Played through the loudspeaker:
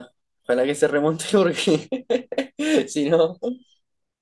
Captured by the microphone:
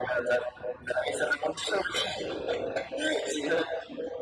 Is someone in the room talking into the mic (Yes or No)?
No